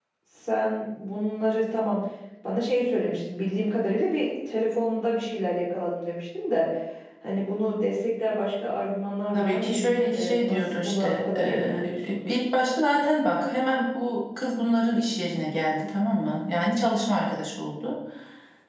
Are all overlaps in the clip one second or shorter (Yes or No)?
No